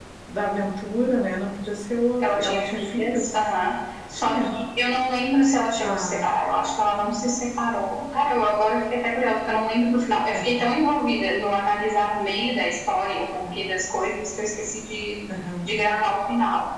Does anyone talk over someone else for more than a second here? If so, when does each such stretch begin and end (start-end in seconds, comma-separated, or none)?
2.2-3.4